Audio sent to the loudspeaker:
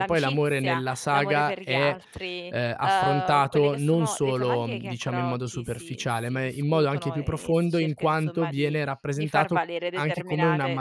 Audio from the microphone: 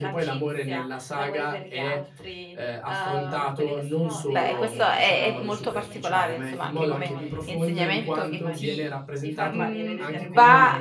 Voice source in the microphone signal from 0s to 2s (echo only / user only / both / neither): echo only